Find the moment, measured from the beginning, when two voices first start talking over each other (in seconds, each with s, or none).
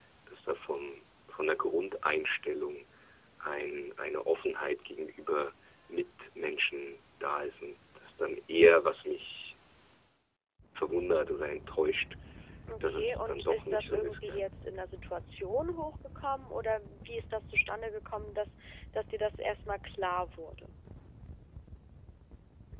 12.9 s